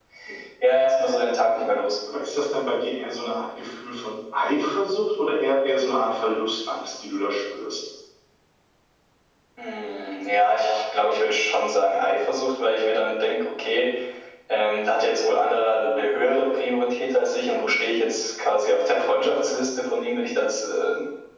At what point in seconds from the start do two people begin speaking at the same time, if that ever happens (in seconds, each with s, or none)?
none